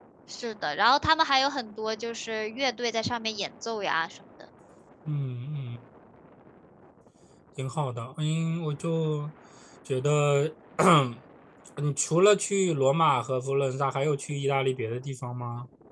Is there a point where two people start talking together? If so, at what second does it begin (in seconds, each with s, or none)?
none